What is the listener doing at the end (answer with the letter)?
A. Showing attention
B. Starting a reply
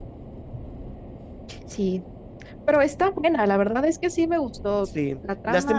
B